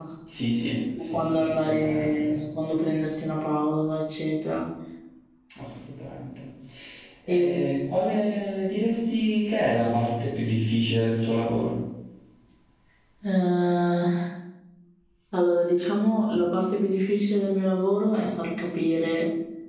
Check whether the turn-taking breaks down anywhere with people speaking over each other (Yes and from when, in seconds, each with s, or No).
Yes, from 1.0 s